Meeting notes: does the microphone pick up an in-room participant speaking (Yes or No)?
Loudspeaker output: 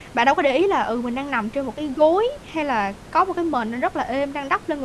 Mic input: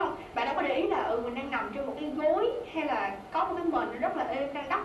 No